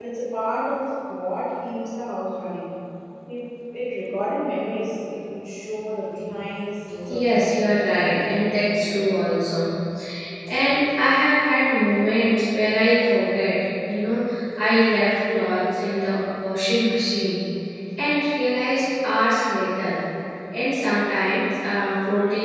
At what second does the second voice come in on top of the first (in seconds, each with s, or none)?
7.0 s